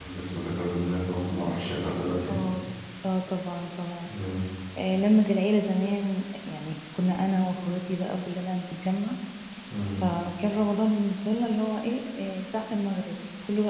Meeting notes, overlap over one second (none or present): none